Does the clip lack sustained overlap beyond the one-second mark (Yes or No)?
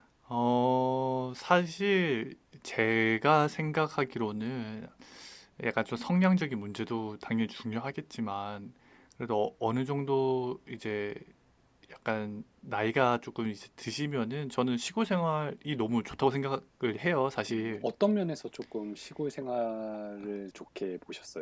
Yes